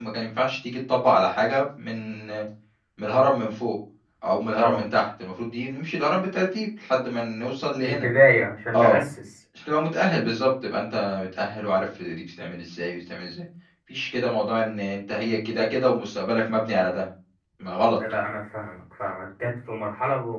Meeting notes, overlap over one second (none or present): none